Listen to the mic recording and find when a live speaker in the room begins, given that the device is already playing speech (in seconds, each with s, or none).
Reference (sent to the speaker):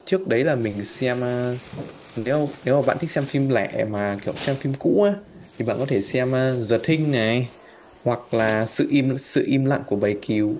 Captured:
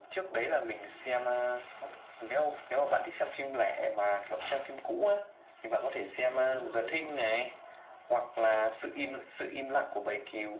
6.2 s